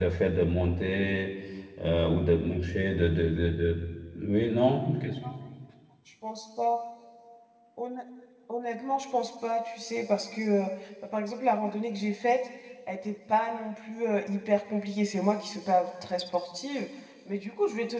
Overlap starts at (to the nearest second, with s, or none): none